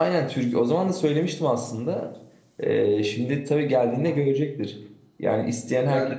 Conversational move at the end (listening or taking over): listening